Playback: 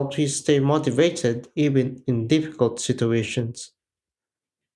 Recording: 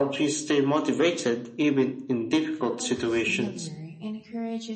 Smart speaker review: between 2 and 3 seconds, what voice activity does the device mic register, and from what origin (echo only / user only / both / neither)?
both